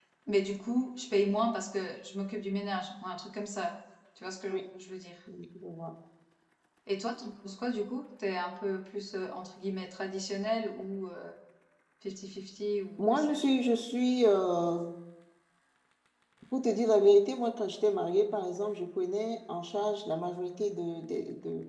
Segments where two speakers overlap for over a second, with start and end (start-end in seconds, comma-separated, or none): none